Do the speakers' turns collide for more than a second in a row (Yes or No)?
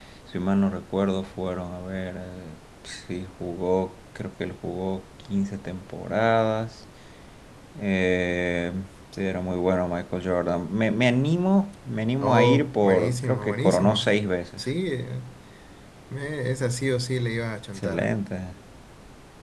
Yes